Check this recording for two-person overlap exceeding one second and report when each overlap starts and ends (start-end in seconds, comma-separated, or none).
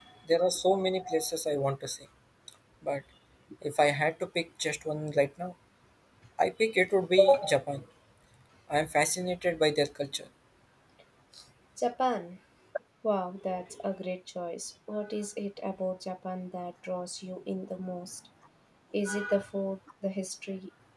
none